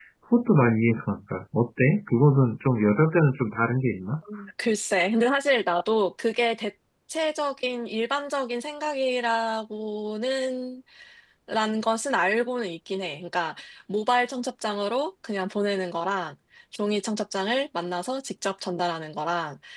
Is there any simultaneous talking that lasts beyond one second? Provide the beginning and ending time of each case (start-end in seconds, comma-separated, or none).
none